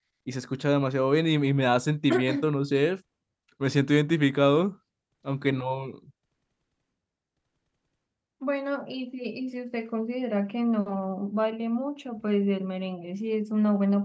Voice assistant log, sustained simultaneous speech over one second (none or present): none